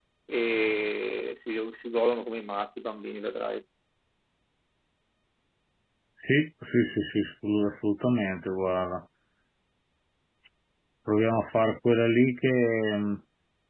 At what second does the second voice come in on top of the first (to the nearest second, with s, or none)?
none